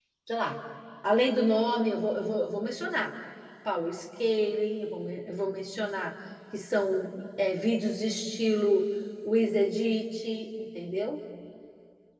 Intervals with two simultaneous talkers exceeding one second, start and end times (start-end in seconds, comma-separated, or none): none